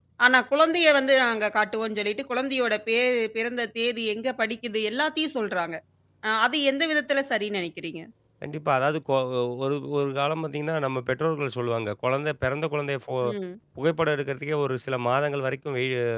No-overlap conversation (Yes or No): Yes